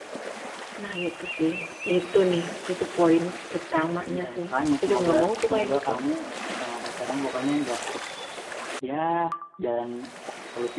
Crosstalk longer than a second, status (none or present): present